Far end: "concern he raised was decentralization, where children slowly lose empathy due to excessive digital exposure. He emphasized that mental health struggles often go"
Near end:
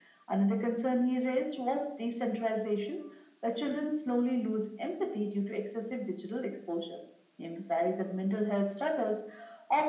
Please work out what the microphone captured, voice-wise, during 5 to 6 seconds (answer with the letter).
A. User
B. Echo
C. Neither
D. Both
B